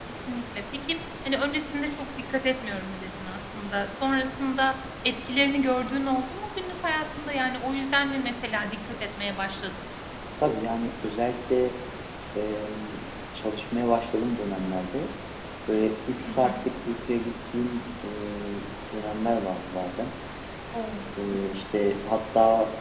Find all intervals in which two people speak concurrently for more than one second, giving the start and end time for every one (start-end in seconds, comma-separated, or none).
none